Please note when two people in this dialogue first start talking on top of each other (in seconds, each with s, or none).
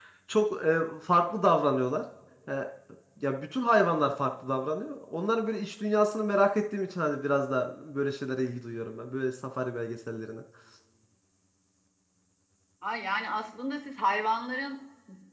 none